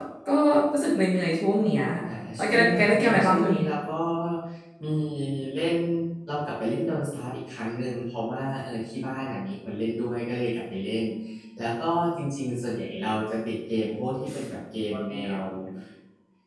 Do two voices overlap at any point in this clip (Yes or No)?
Yes